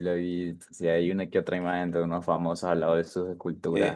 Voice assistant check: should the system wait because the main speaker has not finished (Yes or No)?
No